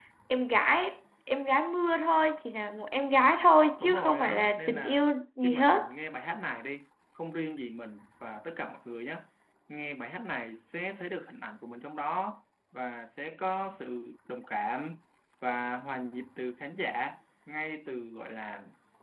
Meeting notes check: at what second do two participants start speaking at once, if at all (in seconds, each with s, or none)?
3.8 s